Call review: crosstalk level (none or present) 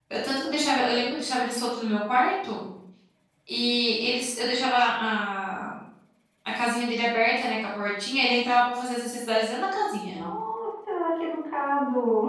none